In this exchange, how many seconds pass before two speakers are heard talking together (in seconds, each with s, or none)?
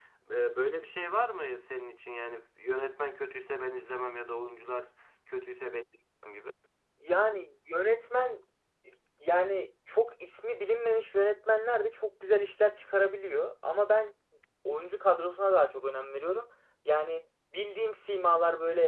none